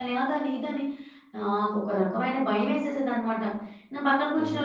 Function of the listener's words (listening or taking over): listening